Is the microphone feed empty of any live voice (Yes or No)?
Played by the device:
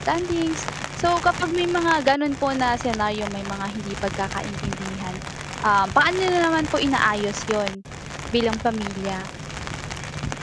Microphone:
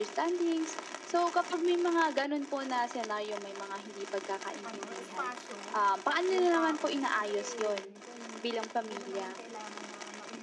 No